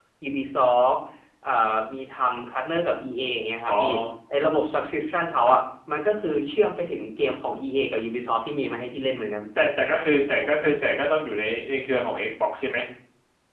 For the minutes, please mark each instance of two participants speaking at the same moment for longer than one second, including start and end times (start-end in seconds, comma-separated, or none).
none